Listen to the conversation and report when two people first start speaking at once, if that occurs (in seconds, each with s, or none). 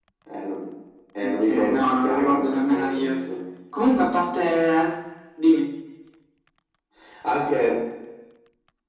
1.2 s